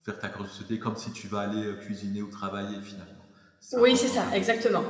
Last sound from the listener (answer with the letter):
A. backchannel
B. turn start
B